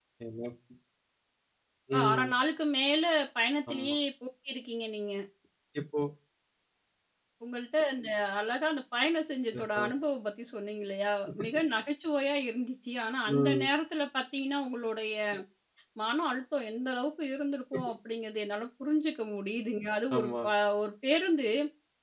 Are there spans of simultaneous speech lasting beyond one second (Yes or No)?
No